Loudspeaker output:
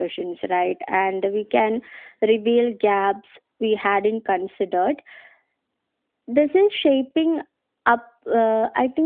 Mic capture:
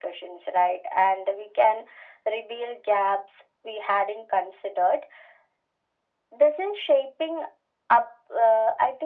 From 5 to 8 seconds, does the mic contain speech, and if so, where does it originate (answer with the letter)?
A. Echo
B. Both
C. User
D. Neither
A